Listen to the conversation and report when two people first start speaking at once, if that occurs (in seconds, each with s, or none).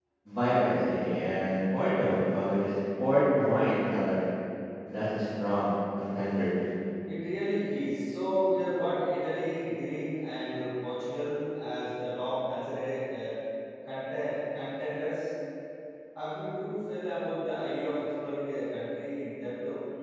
none